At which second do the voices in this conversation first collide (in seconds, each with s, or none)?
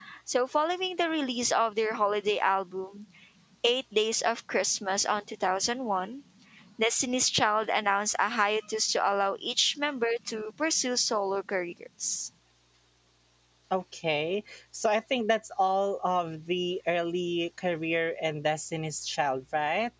none